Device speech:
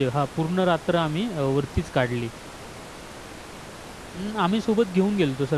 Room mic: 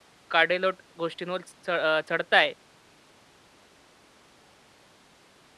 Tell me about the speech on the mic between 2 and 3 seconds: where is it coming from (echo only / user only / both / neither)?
user only